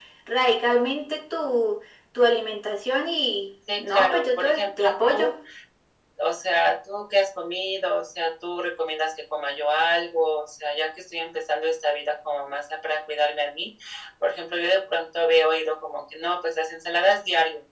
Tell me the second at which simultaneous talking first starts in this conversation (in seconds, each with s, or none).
3.7 s